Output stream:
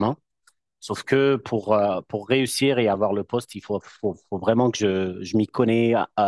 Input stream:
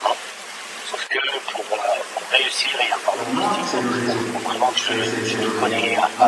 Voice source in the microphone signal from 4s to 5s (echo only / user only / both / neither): both